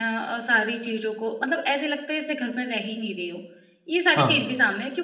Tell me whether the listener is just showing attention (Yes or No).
Yes